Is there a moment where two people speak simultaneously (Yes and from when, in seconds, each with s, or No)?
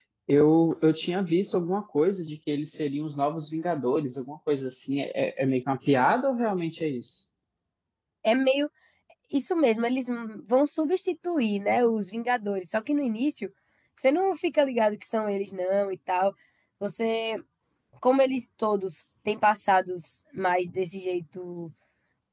No